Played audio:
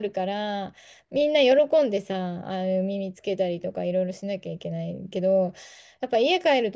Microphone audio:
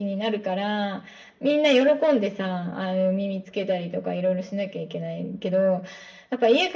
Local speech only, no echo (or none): none